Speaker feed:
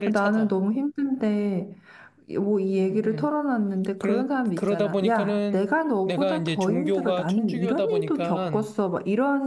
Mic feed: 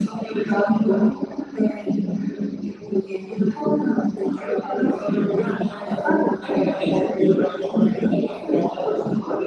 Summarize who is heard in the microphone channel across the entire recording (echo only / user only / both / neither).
echo only